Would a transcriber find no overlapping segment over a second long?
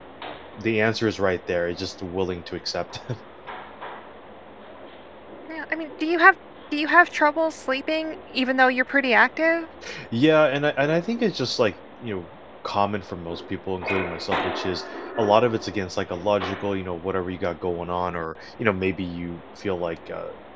Yes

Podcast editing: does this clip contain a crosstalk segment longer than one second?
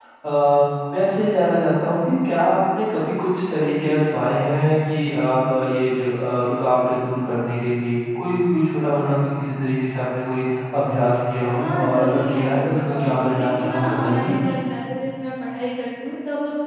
Yes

